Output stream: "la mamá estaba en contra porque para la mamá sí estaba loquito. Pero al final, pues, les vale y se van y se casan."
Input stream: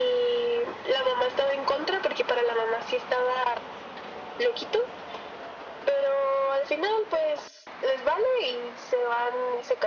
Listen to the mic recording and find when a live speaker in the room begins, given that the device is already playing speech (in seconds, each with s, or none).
none